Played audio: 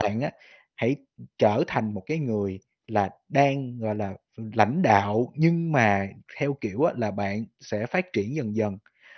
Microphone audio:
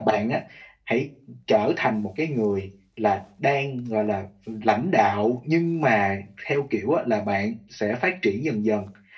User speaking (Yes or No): No